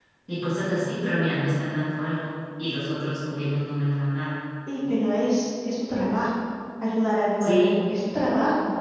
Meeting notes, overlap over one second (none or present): none